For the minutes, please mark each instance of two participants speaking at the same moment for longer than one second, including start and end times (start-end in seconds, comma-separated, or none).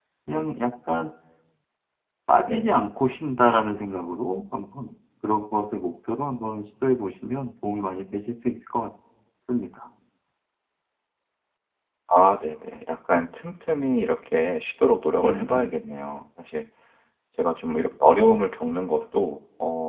none